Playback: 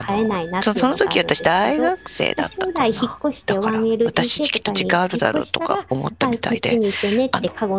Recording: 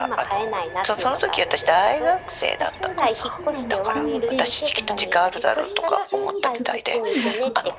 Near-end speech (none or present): present